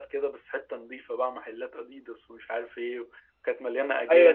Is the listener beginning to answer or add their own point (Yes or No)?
Yes